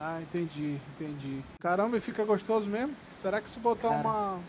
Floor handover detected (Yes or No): No